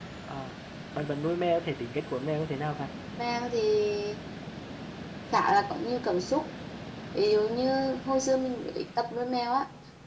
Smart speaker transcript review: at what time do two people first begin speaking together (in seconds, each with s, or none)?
none